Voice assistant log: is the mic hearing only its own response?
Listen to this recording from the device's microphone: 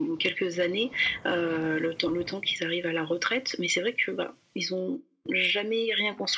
Yes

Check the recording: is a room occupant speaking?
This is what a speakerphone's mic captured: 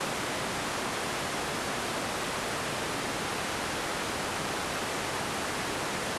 No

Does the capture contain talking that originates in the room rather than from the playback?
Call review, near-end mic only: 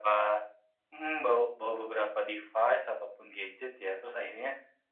No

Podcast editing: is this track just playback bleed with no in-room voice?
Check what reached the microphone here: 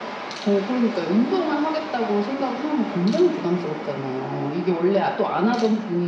Yes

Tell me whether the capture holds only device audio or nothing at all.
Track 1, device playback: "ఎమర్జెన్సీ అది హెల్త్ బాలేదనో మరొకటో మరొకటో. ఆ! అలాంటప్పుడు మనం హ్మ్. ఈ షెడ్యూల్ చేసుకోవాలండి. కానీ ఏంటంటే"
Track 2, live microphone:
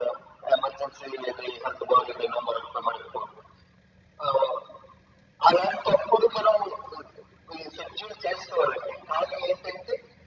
Yes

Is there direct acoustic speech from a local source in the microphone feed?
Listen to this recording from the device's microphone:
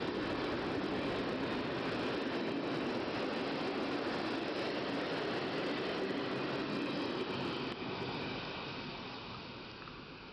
No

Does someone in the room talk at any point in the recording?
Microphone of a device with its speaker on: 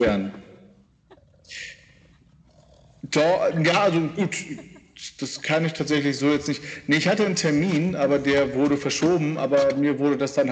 No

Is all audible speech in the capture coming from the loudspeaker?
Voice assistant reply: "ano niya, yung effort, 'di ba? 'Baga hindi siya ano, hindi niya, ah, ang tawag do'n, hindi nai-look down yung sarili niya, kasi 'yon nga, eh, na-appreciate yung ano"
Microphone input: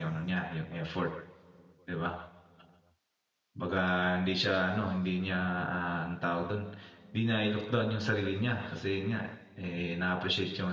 Yes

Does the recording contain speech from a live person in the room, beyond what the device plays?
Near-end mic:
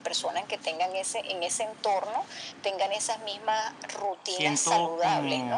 Yes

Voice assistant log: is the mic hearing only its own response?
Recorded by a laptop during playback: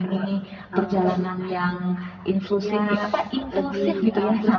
Yes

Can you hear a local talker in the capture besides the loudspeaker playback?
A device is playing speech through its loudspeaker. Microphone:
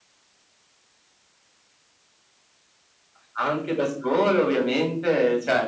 No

